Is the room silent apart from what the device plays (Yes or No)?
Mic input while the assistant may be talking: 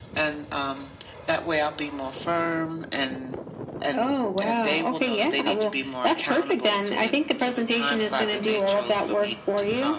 Yes